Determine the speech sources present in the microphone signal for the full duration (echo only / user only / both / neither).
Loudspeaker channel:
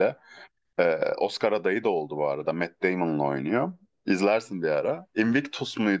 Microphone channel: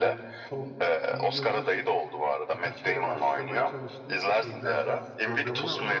both